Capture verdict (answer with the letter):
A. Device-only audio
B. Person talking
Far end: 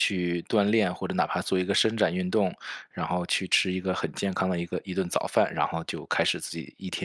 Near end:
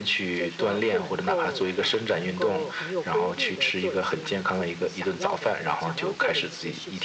B